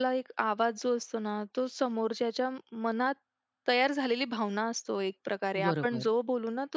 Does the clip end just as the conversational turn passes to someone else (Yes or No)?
No